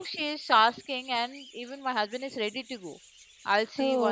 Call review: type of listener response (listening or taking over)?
listening